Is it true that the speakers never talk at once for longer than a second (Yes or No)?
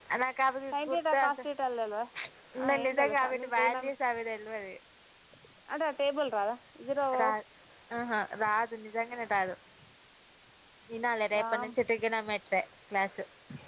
No